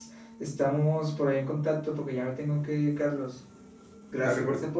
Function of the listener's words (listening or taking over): listening